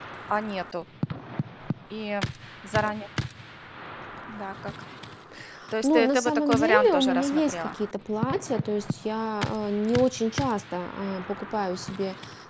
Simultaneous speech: Yes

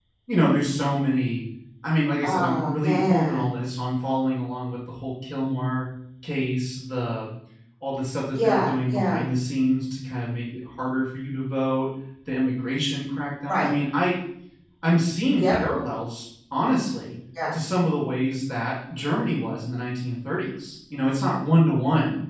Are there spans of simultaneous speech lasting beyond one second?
Yes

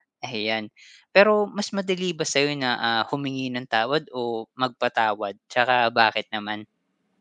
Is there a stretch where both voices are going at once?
No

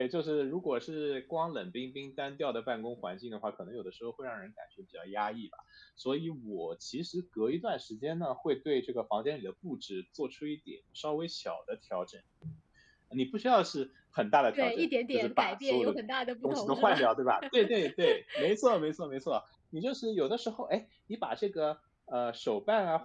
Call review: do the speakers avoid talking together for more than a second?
No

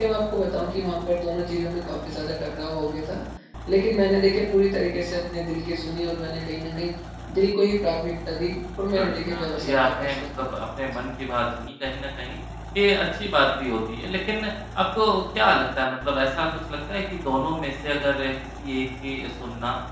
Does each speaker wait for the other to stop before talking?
No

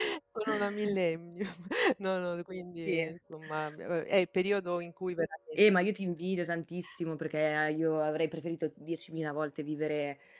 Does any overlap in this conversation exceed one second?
No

